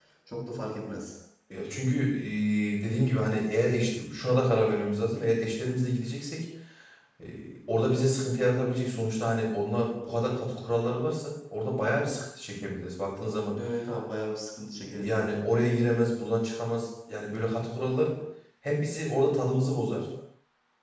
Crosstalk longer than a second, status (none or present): none